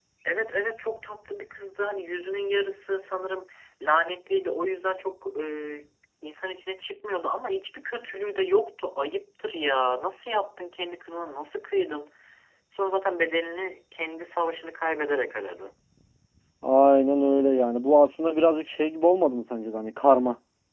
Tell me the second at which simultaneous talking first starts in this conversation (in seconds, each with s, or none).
none